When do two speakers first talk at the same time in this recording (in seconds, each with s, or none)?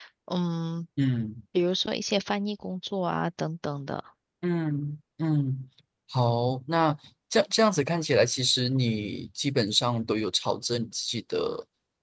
none